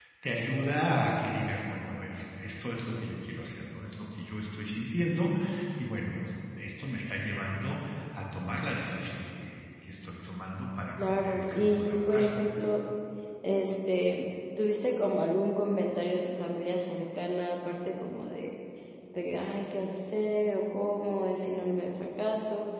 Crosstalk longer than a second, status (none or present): present